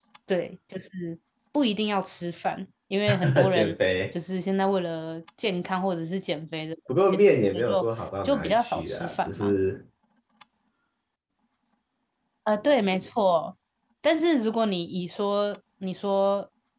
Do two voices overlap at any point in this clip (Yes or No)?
Yes